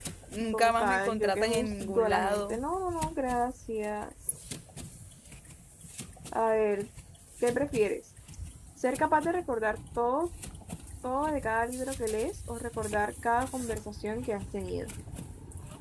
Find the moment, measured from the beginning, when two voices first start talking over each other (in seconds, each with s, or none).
0.5 s